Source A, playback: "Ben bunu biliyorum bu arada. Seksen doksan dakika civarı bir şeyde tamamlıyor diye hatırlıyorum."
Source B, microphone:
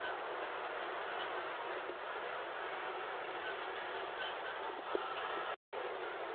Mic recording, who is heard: neither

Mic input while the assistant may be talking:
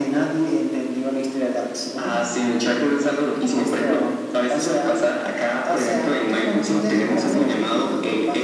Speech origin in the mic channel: both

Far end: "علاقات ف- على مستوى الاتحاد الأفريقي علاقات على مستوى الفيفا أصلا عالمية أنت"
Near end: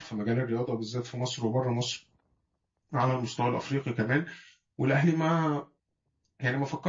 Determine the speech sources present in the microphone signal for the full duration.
user only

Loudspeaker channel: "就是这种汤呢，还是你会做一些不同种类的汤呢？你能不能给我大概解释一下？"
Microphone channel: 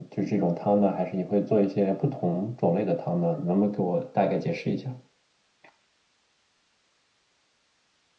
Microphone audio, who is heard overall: echo only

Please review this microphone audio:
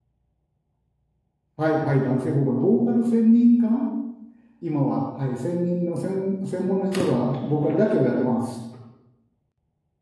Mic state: user only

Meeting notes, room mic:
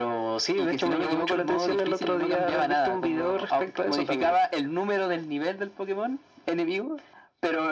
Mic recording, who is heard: echo only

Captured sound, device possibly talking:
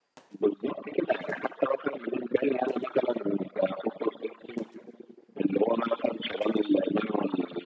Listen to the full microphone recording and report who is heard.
echo only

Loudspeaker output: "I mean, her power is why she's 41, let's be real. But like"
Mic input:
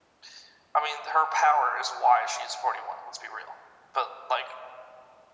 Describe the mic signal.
echo only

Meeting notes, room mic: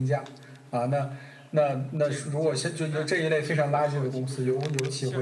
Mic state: both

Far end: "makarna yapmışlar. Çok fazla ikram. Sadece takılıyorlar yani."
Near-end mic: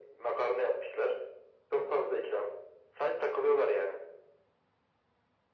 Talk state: echo only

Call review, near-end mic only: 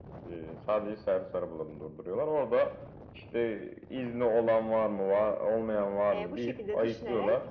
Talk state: both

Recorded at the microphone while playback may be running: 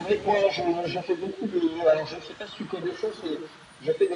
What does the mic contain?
echo only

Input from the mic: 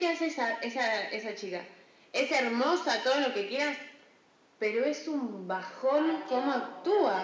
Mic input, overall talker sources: both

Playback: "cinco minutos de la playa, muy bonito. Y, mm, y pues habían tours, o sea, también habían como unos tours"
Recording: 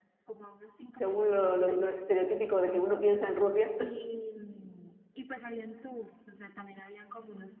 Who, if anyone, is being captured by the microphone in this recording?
both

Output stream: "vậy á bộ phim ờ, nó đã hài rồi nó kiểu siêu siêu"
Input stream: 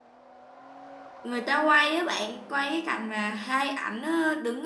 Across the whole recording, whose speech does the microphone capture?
user only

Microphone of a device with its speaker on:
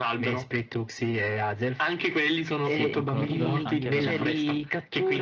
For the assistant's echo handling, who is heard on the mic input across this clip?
both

